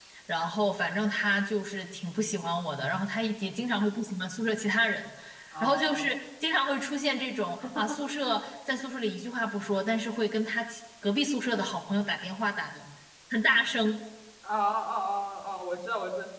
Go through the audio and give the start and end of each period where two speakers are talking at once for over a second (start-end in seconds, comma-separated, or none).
none